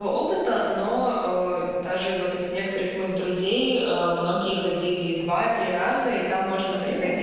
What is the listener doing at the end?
listening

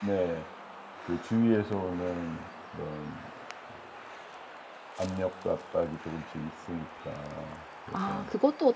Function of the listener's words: taking over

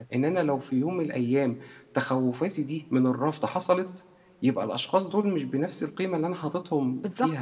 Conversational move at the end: taking over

